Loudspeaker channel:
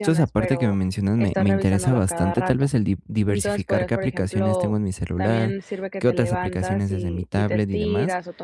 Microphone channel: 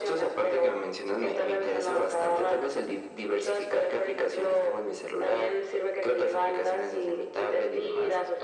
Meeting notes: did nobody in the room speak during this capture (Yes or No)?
Yes